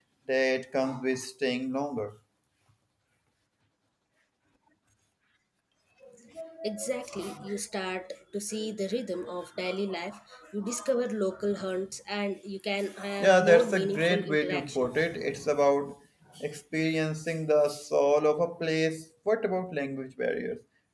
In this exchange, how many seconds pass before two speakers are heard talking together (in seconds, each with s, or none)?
13.2 s